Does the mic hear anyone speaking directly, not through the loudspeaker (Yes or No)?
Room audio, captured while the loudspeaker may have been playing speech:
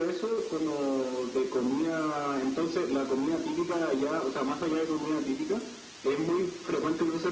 No